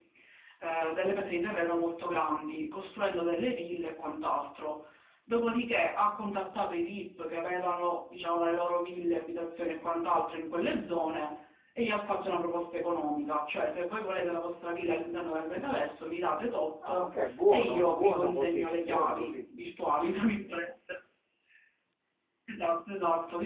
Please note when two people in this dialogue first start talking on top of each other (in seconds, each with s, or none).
16.8 s